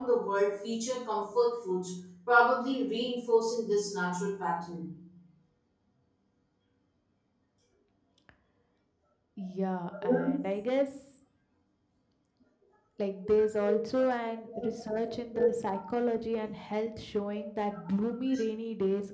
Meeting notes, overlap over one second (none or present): none